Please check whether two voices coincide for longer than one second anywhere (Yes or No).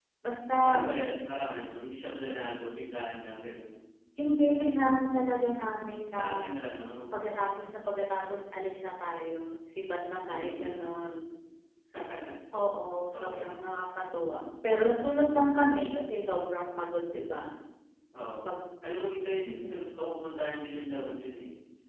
No